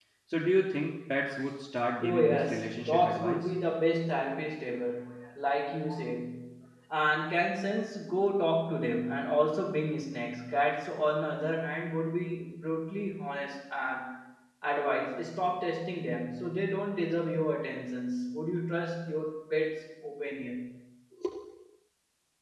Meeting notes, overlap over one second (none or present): present